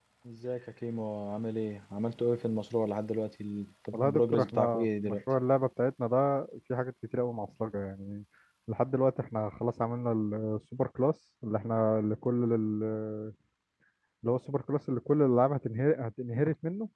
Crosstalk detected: Yes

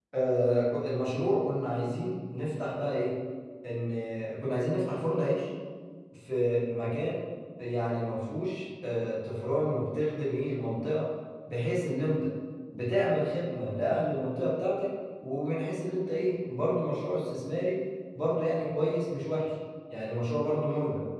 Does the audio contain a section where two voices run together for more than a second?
No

